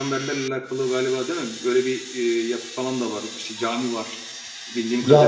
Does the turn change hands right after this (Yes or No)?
Yes